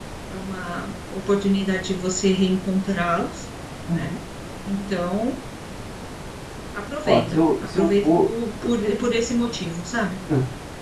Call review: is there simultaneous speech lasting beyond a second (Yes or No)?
Yes